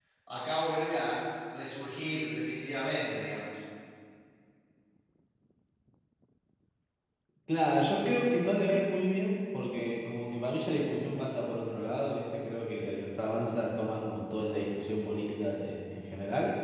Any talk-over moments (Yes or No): No